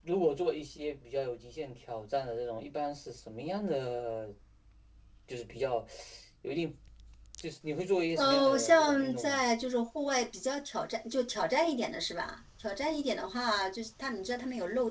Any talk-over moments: Yes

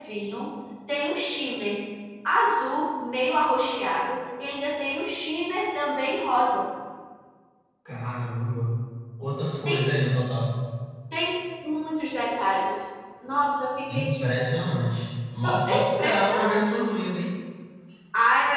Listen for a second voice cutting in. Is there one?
Yes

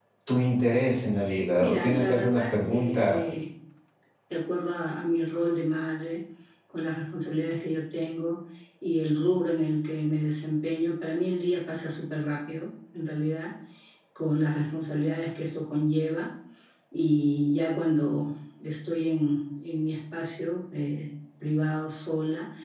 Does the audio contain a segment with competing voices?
Yes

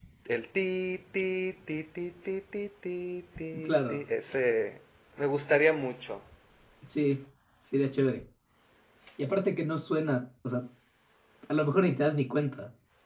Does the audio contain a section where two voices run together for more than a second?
No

